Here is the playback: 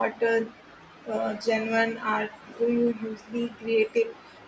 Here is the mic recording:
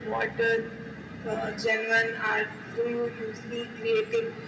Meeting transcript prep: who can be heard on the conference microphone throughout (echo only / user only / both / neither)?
echo only